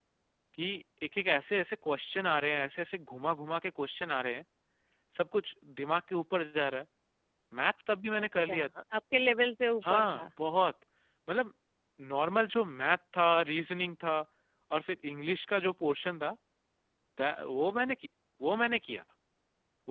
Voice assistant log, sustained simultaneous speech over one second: none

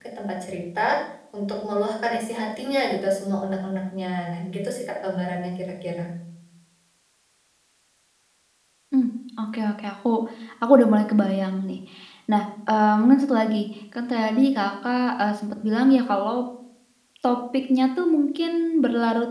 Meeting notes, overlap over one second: none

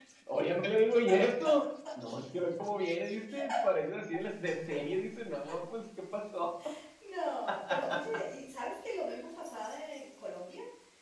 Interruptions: none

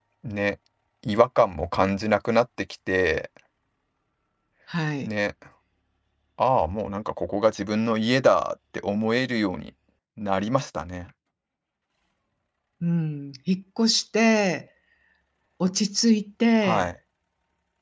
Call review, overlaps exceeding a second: none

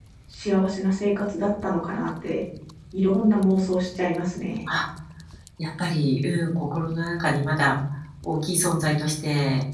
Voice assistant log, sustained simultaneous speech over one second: none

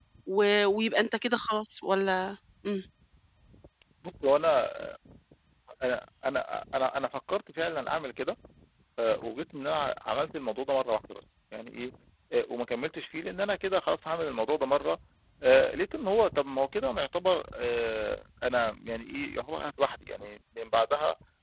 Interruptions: none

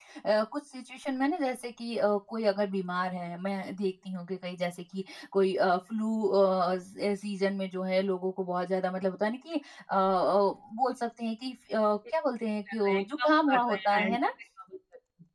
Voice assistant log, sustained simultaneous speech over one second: present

